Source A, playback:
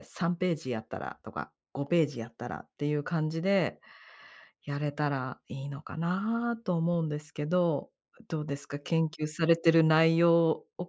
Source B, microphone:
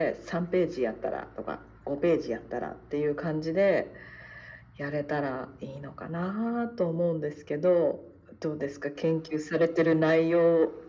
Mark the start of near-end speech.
none

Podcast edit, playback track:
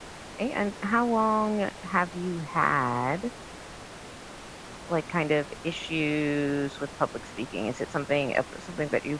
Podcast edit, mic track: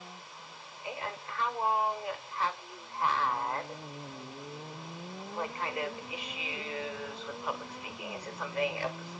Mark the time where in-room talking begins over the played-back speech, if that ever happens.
none

